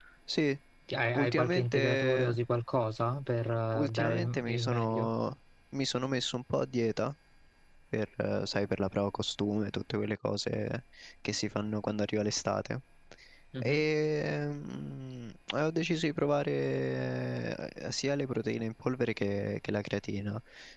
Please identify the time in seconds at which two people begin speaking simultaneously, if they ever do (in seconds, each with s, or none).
1.1 s